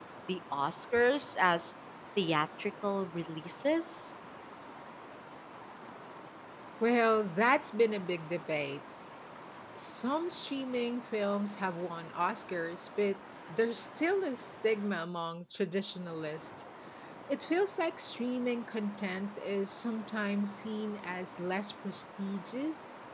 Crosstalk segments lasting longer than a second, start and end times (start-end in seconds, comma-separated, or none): none